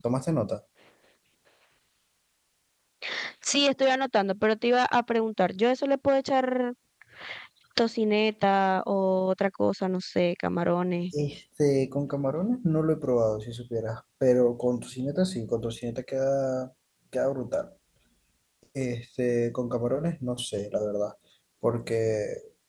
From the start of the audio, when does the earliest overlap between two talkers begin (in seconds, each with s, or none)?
none